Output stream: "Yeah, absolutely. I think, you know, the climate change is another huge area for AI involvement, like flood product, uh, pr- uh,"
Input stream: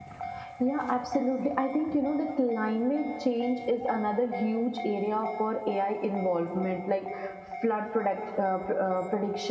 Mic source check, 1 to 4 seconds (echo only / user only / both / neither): echo only